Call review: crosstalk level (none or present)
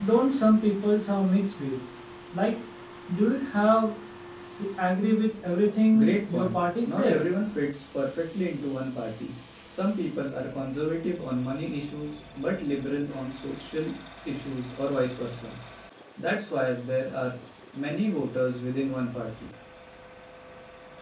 present